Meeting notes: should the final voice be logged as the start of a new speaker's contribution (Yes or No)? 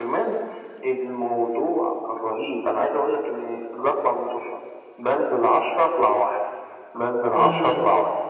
No